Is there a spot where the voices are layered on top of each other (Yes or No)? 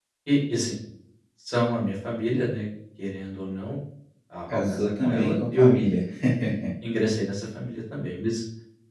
Yes